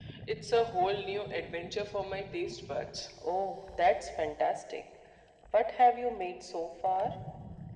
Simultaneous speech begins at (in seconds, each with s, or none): none